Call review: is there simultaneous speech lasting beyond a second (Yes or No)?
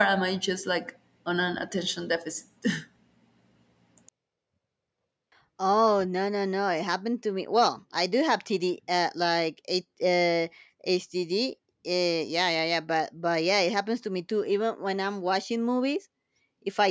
No